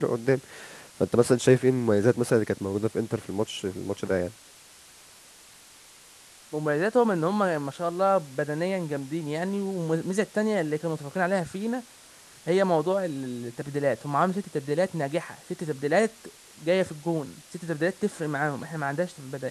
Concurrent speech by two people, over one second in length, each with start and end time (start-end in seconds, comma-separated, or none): none